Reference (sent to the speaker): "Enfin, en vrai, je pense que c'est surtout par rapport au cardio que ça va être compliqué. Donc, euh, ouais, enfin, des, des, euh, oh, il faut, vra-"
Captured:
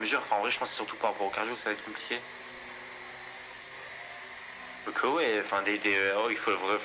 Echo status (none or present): present